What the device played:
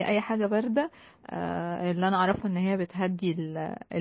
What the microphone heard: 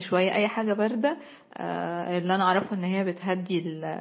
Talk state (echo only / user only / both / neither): echo only